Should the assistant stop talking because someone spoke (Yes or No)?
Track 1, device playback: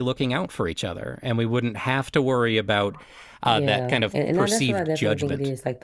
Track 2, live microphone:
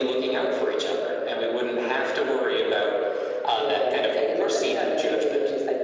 No